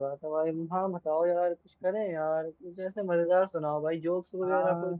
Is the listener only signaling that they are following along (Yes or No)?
No